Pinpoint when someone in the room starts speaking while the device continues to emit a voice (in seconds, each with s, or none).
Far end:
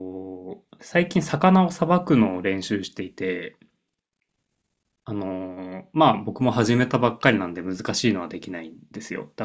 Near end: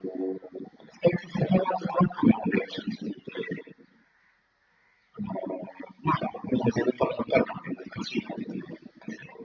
none